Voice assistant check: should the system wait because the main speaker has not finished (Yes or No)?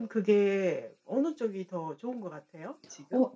No